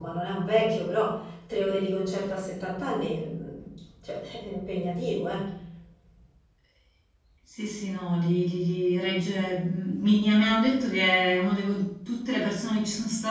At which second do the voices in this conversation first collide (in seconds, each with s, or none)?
none